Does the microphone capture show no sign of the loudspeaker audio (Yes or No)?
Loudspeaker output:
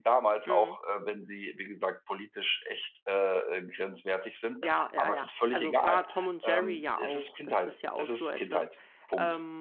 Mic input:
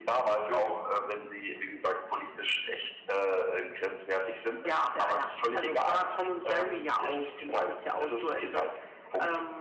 No